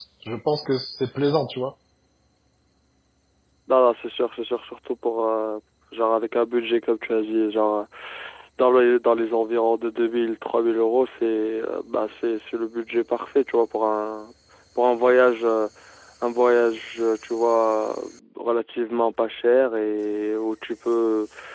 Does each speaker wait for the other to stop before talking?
Yes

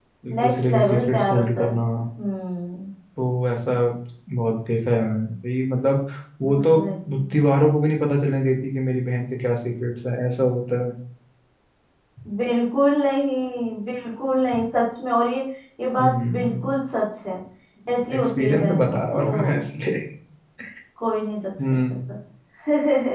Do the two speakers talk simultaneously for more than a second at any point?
Yes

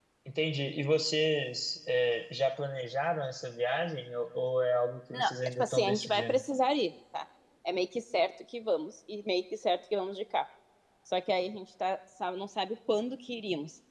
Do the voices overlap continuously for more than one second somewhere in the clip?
Yes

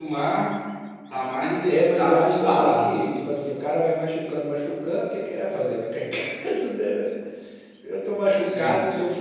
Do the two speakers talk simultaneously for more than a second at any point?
Yes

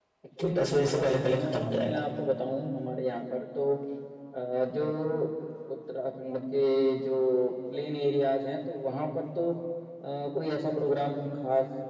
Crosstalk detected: Yes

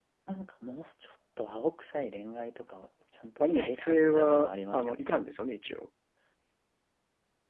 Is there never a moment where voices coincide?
No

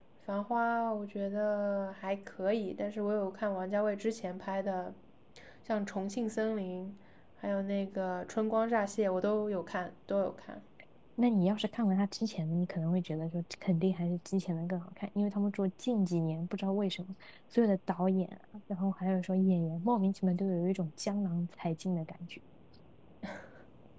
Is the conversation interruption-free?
Yes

